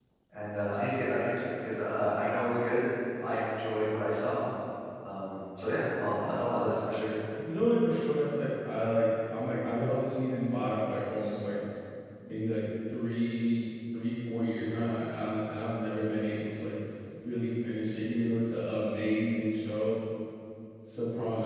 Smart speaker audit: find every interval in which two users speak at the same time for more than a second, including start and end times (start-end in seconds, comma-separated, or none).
none